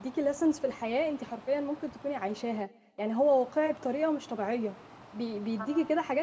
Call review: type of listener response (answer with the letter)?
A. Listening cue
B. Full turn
A